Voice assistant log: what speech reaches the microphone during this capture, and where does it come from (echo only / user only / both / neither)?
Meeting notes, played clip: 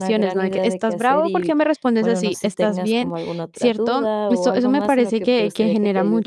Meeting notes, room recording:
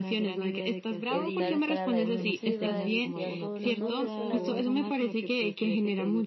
both